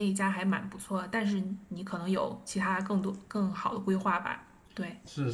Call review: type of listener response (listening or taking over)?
taking over